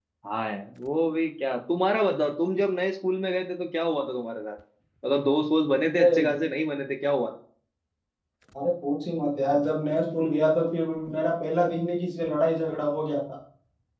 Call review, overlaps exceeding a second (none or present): none